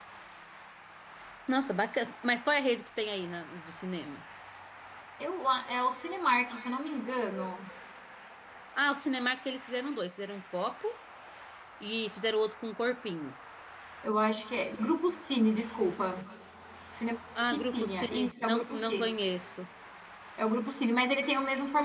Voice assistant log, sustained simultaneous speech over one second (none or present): present